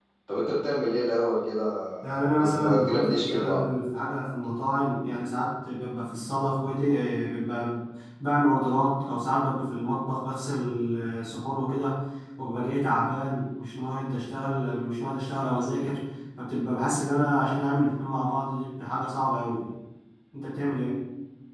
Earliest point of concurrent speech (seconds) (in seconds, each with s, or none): 2.2 s